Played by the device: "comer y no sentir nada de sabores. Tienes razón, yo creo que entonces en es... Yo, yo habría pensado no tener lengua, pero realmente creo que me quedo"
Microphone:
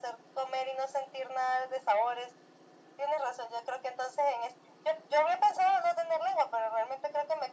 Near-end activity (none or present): none